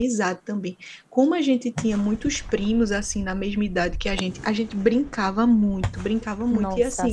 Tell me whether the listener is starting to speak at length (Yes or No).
No